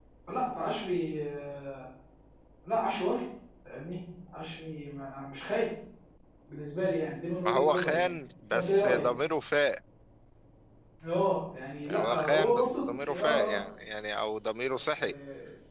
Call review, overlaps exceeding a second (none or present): present